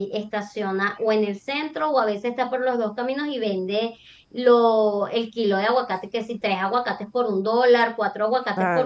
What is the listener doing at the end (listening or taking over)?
taking over